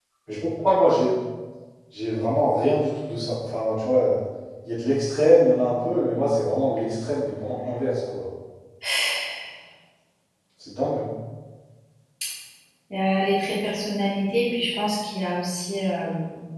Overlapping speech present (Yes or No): No